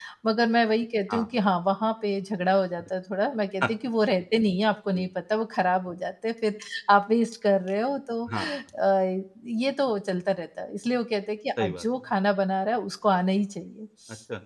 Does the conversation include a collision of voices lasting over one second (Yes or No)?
No